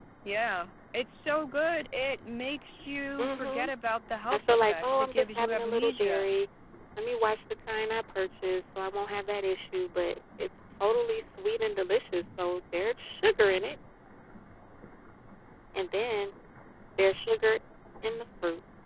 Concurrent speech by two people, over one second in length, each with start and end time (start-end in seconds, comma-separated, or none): 4.3-6.3